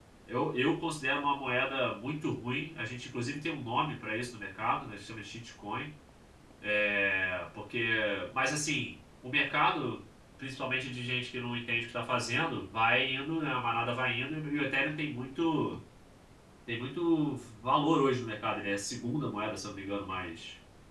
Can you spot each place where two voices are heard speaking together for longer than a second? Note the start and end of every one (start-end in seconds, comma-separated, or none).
none